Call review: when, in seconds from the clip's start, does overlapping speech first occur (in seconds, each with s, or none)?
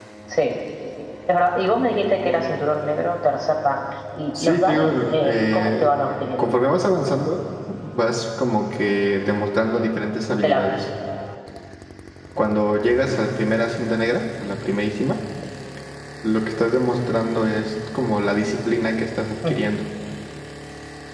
4.4 s